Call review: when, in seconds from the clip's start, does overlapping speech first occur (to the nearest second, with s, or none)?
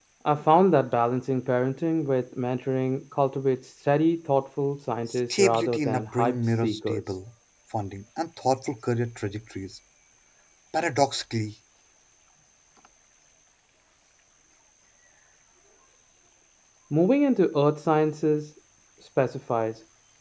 5 s